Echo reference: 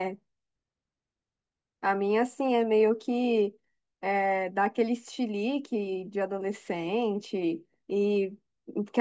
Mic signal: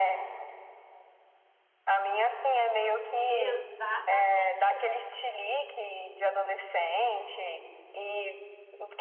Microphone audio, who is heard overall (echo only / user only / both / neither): both